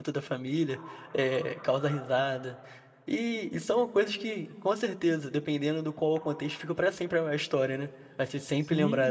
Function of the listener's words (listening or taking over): taking over